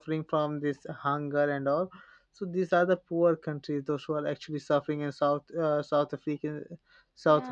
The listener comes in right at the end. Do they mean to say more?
No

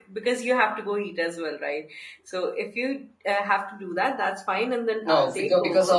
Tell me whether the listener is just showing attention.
No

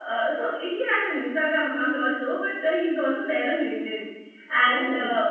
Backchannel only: Yes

